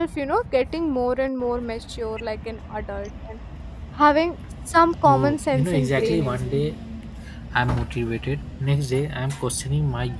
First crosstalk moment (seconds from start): 5 s

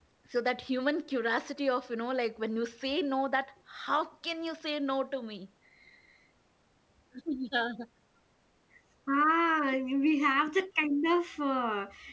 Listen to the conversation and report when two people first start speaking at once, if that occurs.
none

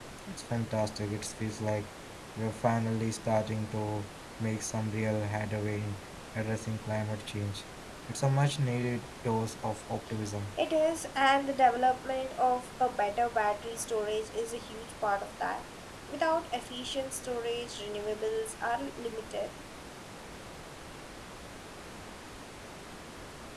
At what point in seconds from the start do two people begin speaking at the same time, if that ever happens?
none

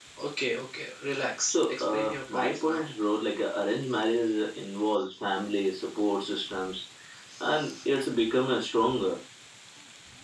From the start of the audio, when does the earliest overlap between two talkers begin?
1 s

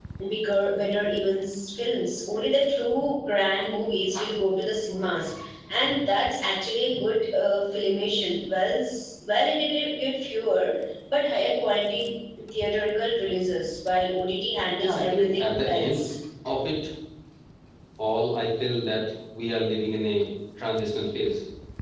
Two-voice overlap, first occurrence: 15 s

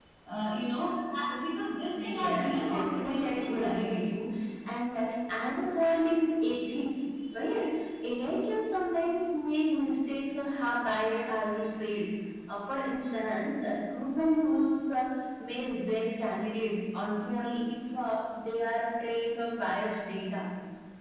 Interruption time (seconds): 2 s

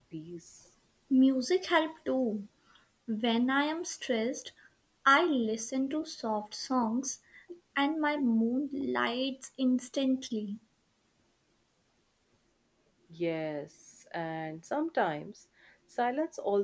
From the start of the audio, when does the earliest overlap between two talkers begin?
none

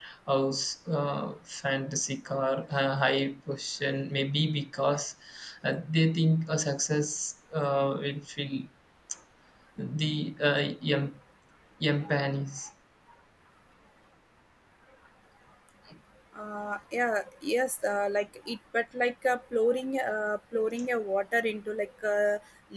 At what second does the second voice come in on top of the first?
none

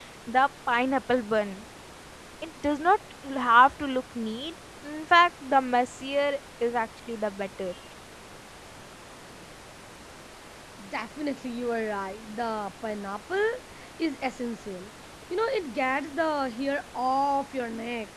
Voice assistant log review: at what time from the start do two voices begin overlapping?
none

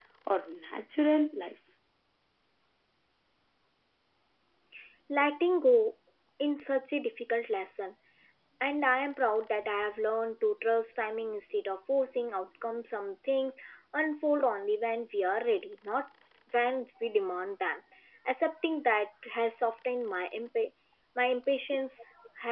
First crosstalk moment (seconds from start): none

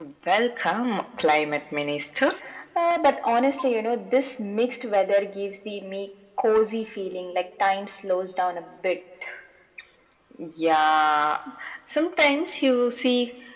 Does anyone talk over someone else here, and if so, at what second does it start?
none

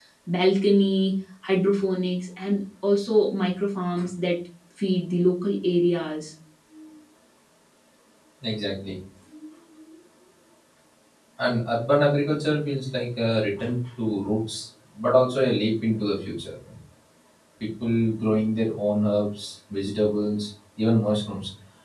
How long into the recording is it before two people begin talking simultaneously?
none

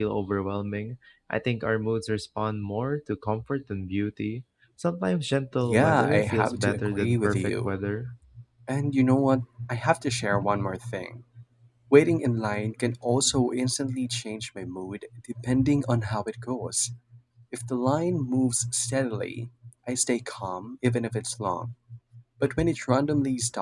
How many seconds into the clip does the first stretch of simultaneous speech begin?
6 s

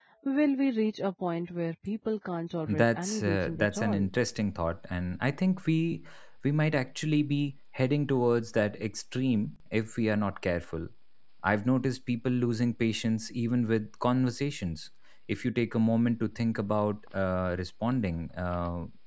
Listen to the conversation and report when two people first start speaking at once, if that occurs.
3 s

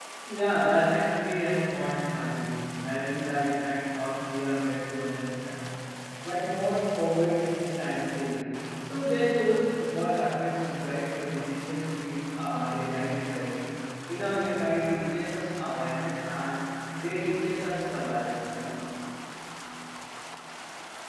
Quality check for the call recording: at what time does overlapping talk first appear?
none

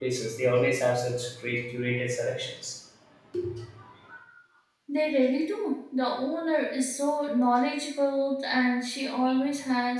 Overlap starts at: none

